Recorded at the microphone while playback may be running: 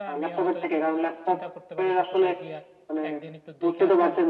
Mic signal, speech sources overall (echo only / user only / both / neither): both